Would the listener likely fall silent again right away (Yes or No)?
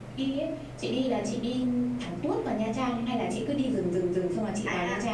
No